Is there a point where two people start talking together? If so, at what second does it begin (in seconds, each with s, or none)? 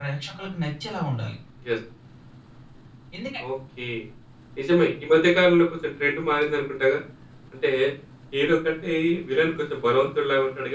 none